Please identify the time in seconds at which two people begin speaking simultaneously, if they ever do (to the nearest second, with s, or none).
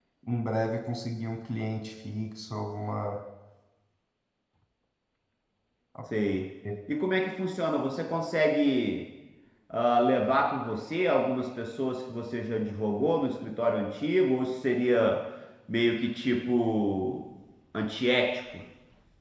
none